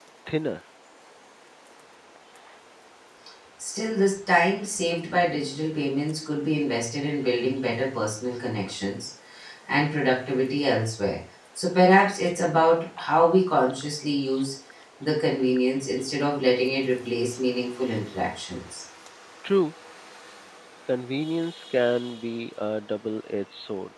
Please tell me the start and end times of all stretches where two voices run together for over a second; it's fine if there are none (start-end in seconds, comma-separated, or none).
none